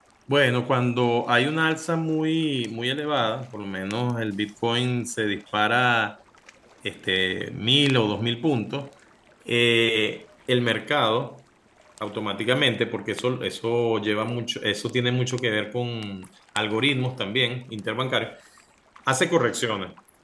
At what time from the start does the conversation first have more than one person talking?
none

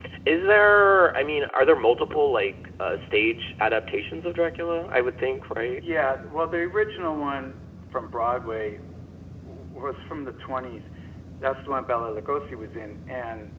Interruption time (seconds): none

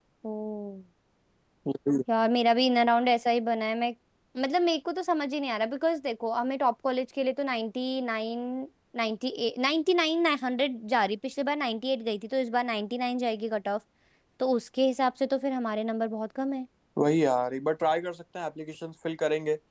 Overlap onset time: none

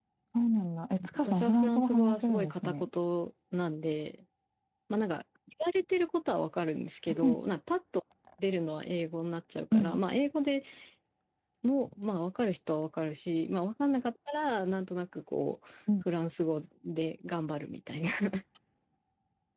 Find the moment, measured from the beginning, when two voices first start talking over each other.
1 s

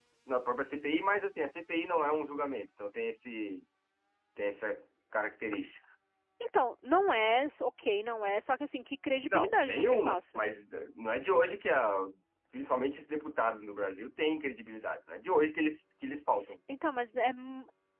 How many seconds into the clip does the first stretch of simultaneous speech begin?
9 s

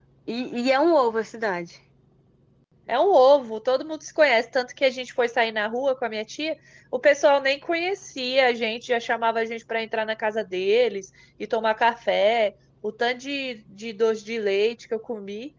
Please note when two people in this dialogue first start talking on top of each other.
none

